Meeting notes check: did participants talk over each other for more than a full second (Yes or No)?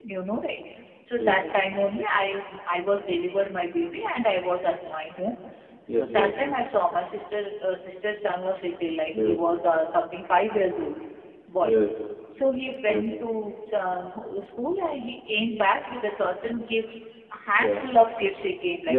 No